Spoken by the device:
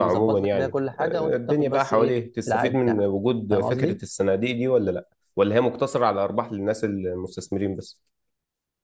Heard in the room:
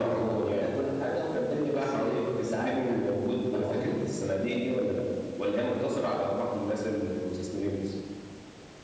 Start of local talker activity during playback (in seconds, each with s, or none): none